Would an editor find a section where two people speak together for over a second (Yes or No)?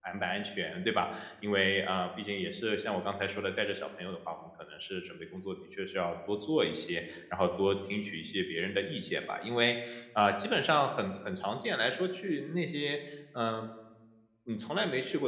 No